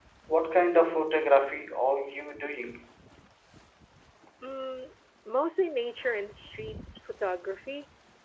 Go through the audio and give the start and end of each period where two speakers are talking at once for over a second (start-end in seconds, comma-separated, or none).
none